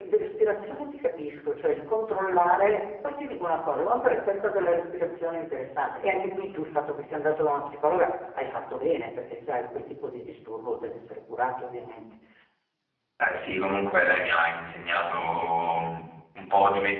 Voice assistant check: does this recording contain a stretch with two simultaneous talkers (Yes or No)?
No